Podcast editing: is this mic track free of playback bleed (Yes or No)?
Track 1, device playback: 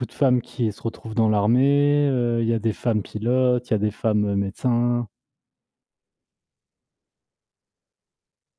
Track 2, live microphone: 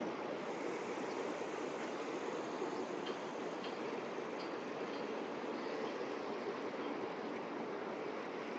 Yes